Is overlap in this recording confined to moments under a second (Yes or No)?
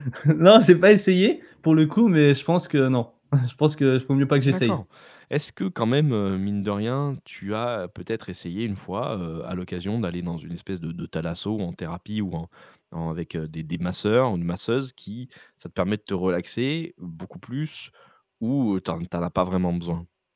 Yes